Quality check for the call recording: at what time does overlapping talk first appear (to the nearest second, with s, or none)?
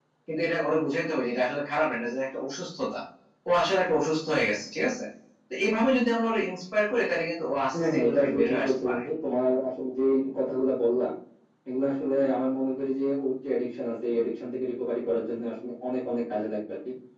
8 s